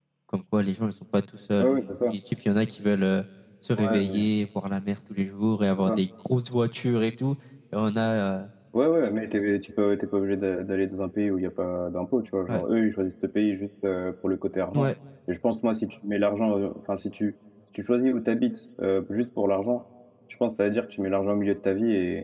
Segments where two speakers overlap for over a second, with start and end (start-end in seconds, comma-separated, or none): none